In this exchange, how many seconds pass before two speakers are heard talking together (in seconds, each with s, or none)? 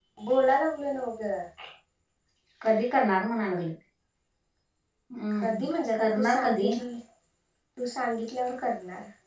5.3 s